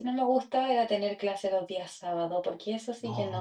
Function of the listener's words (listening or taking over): taking over